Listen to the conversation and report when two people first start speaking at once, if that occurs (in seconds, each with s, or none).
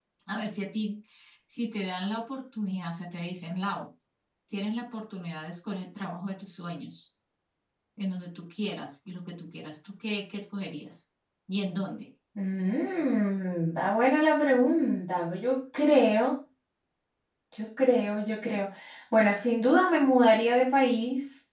none